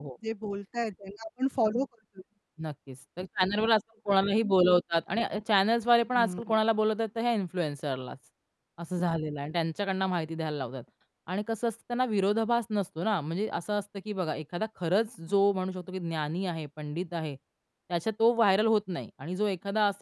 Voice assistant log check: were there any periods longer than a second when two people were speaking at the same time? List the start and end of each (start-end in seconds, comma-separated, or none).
none